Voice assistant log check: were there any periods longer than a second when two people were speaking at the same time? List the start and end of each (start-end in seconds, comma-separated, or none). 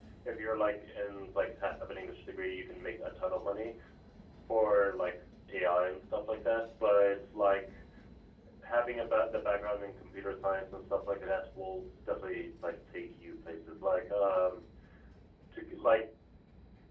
none